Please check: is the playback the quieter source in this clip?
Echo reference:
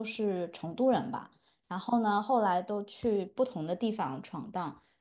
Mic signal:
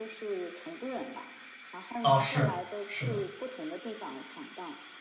Yes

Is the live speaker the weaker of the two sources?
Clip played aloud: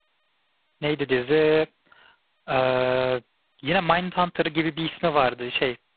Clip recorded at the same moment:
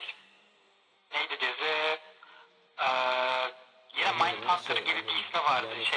Yes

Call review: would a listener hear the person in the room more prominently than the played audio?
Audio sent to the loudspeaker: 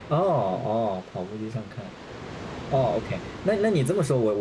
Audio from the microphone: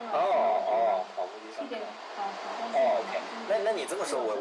No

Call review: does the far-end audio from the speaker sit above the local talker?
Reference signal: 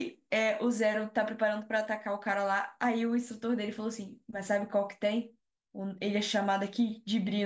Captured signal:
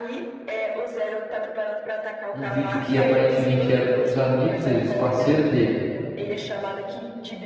No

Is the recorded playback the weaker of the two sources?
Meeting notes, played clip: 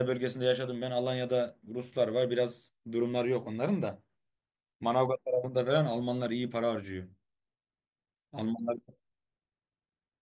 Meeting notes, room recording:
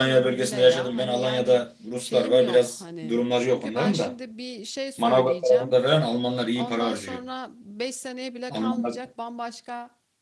No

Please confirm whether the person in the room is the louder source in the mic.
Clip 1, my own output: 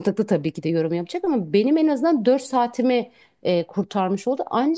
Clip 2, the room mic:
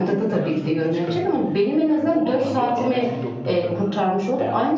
No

